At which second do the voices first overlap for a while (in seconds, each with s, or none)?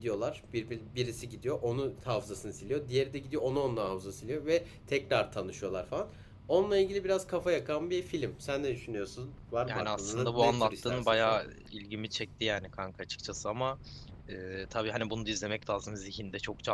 9.7 s